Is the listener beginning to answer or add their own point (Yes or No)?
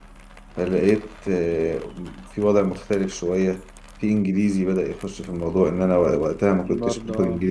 No